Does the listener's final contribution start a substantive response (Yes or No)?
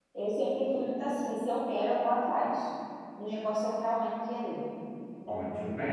Yes